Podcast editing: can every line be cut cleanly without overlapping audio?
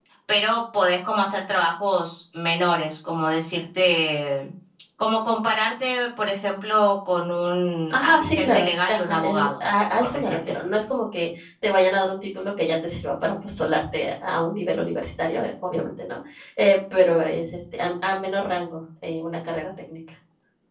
No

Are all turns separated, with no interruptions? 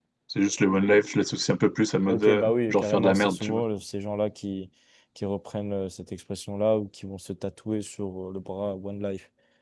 No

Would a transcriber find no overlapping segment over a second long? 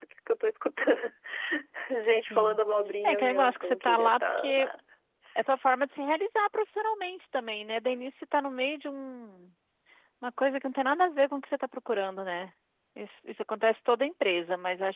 No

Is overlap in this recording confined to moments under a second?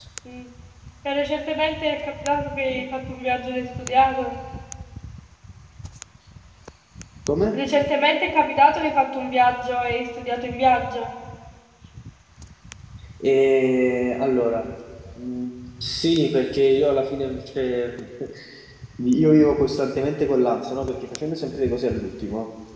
Yes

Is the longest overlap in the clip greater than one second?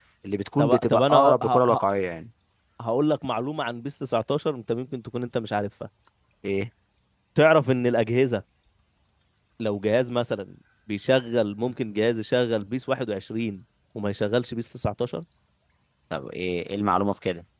Yes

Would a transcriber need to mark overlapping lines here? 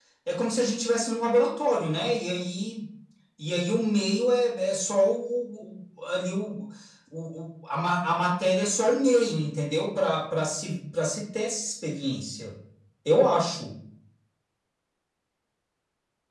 No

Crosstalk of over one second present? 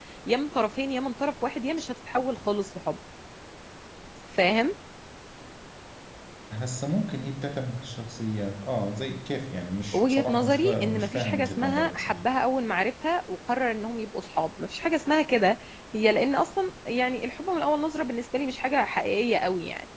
Yes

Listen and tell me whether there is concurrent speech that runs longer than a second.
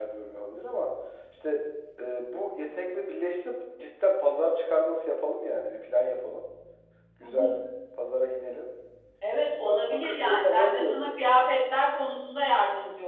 Yes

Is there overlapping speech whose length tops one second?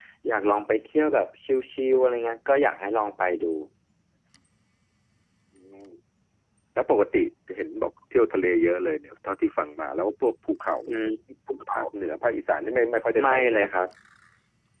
No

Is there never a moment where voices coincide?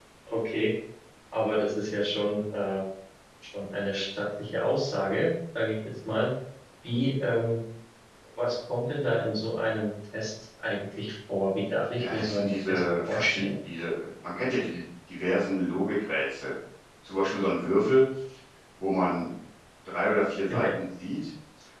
No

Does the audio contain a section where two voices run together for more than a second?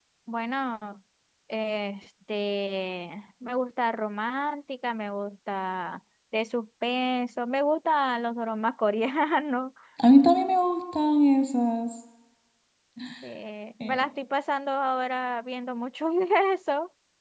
No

